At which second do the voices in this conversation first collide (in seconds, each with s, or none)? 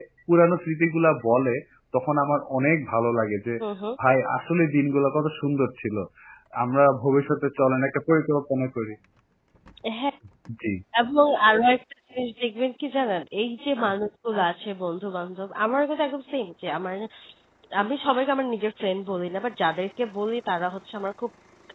none